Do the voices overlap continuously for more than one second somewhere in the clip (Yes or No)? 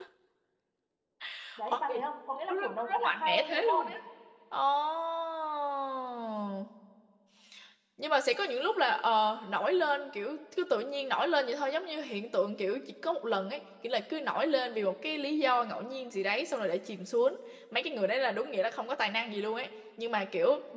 Yes